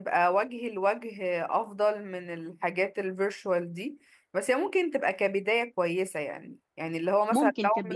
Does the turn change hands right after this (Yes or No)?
No